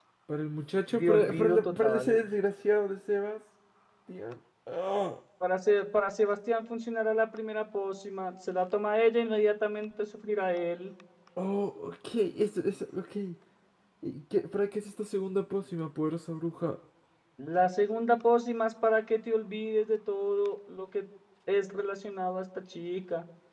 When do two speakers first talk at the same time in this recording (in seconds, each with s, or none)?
0.9 s